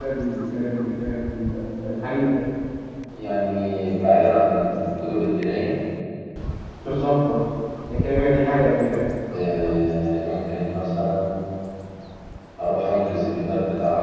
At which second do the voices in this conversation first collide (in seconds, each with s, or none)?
none